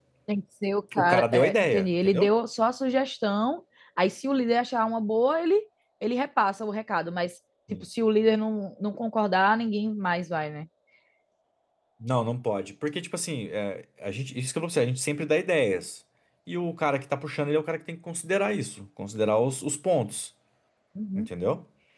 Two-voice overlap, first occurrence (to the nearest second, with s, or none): 1 s